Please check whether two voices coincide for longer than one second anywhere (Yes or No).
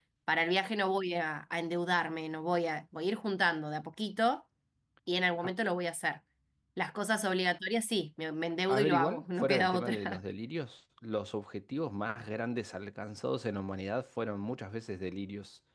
Yes